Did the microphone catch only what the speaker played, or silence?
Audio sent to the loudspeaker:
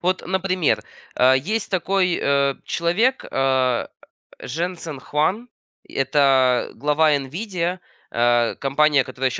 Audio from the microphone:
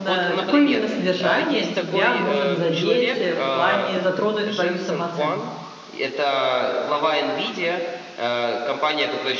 No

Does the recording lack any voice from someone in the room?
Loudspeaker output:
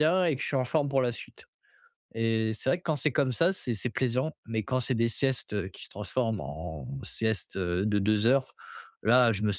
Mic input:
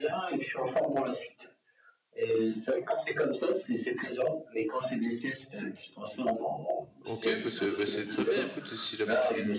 No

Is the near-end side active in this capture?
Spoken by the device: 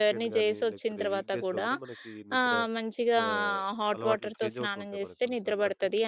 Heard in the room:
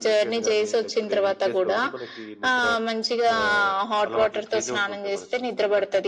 No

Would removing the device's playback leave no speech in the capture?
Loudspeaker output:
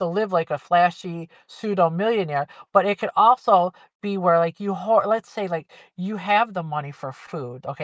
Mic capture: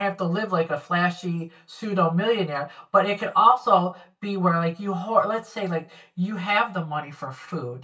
Yes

